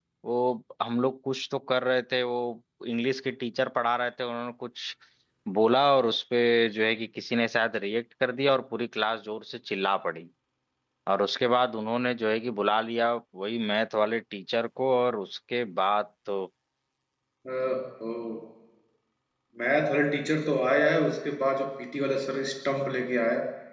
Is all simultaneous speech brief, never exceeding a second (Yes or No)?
Yes